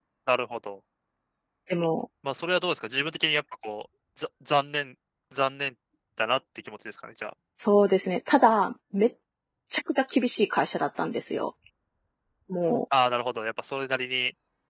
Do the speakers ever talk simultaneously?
No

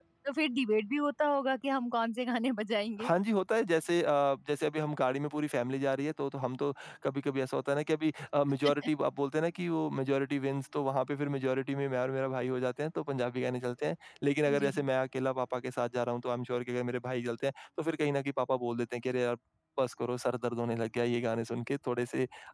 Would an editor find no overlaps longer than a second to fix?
Yes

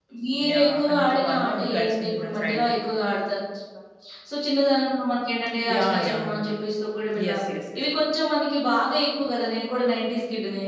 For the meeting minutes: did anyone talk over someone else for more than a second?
Yes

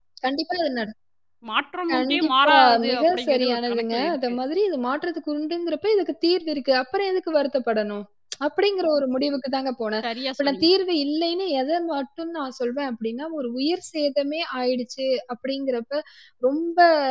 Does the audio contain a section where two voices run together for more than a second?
Yes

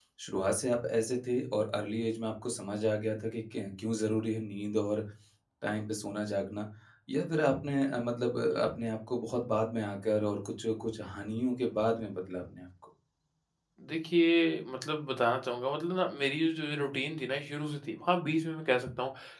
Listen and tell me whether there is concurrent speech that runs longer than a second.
No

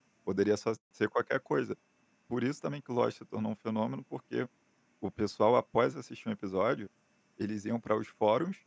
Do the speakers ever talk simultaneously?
No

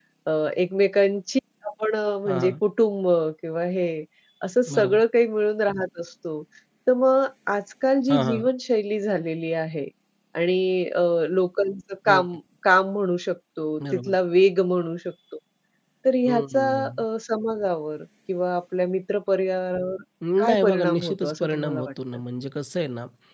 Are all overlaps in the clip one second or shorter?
No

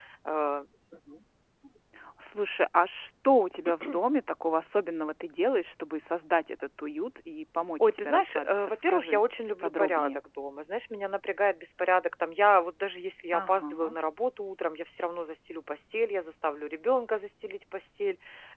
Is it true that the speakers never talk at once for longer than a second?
No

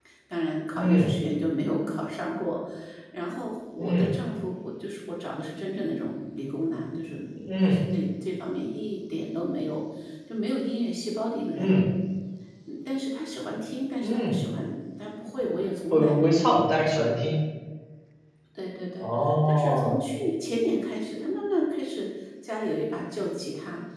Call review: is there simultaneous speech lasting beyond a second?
Yes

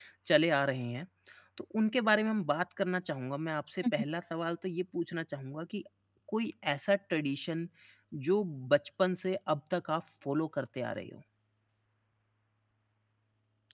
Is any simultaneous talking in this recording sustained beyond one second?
No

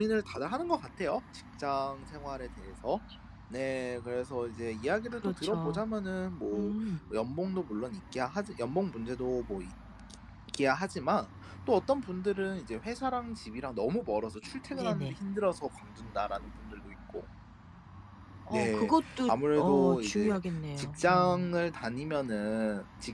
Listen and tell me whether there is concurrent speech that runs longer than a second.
Yes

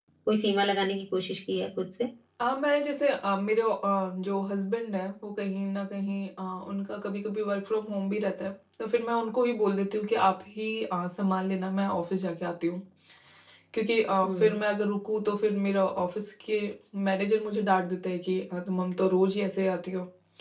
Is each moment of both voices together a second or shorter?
Yes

